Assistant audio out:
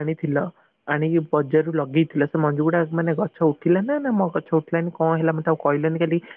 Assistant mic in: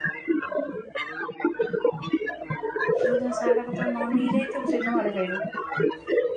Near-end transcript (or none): ଯୋଉ ଦିନ ସାହାଡା ପତ୍ର ନ ନେଇକି ଯାଇଥିବୁ ସେଇଦିନ ମାଡ ଖାଇବୁ।